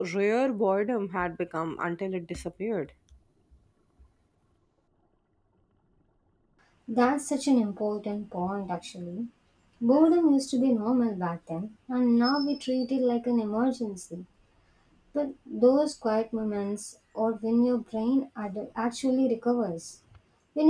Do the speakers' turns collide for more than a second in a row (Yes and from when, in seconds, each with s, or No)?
No